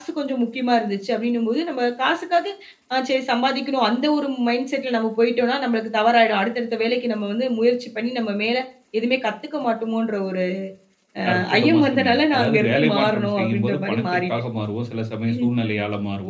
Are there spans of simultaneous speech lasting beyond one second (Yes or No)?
Yes